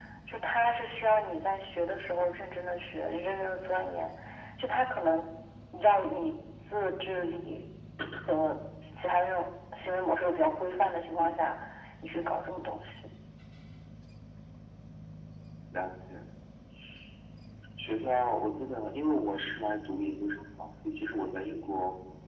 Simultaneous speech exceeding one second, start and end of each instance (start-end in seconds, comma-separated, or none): none